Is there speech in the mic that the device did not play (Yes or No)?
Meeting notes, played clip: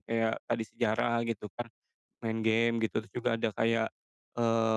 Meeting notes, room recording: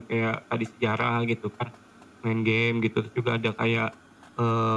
No